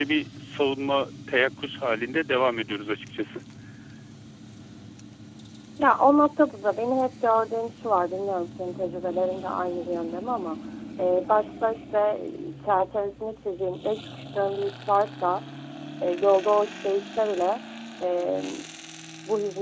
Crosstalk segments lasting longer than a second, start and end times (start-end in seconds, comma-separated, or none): none